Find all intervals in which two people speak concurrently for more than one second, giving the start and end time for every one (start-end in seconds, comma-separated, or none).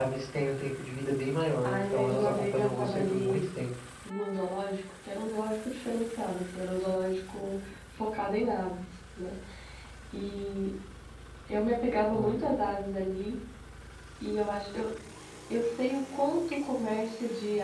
1.6-3.4